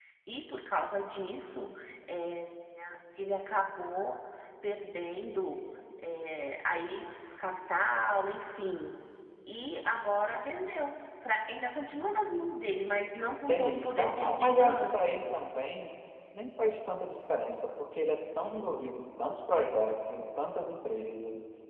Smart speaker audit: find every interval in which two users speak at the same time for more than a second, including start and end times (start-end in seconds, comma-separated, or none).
13.5-15.2